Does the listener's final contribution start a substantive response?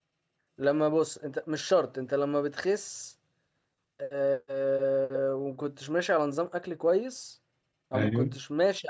No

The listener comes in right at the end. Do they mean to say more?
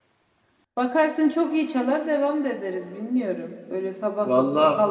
No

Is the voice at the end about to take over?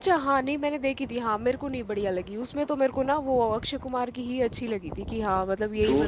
Yes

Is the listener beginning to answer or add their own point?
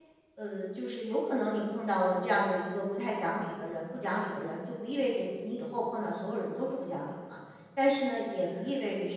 No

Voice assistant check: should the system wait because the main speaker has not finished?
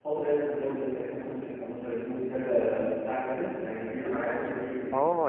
No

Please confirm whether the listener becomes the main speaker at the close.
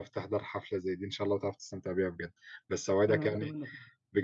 No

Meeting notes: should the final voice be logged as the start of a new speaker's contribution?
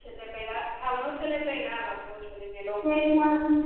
Yes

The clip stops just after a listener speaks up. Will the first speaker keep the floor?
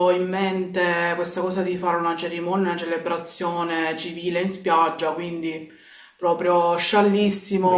No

